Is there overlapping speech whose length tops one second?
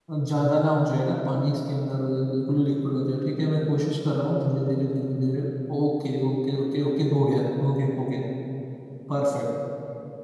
No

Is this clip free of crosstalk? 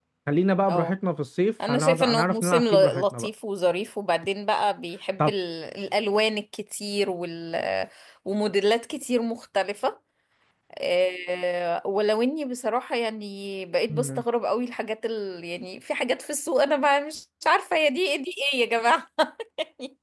No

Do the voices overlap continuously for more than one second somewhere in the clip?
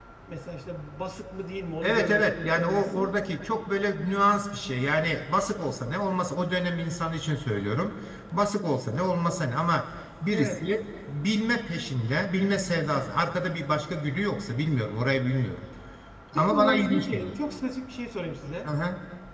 Yes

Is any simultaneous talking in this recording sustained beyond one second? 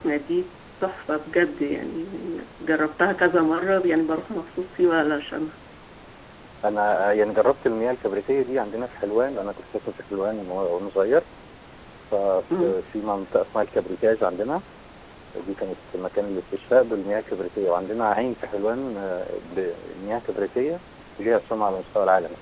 No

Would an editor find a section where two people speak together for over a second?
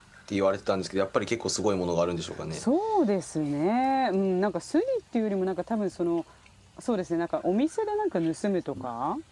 No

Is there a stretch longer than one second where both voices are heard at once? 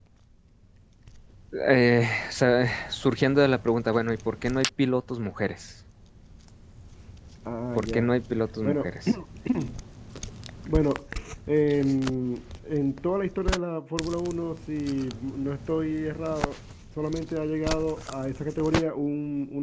No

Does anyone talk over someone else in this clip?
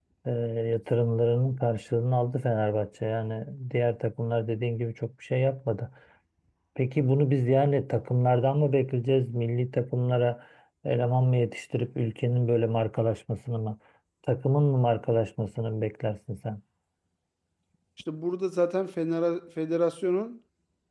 No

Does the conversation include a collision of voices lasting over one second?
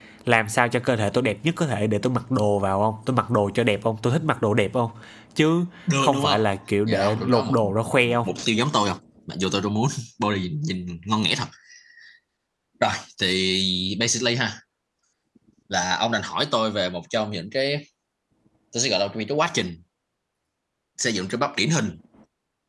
Yes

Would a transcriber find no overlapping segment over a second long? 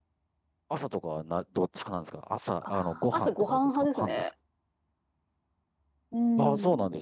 No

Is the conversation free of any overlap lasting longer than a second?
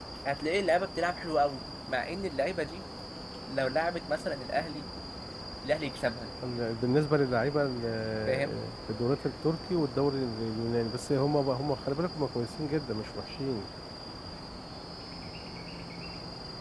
Yes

